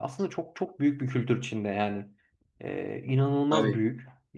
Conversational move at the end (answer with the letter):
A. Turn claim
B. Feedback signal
B